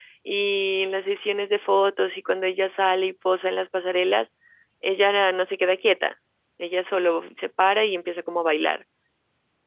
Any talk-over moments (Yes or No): No